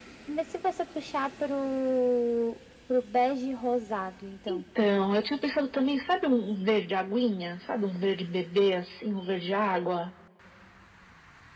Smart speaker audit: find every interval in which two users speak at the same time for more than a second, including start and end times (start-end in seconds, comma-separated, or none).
none